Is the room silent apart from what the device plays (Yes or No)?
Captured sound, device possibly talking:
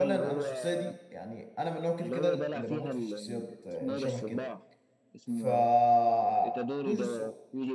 No